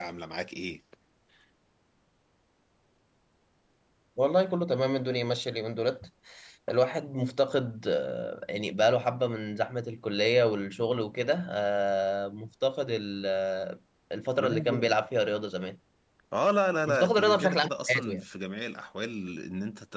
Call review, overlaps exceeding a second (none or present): present